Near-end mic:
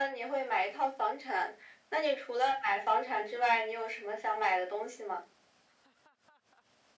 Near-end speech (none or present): none